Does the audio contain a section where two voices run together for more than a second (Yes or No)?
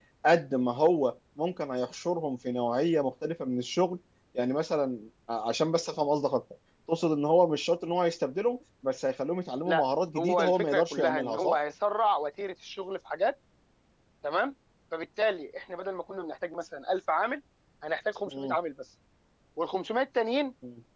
Yes